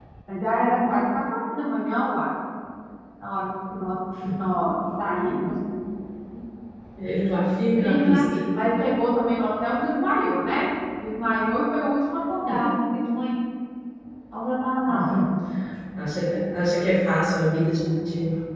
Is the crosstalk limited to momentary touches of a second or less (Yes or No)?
Yes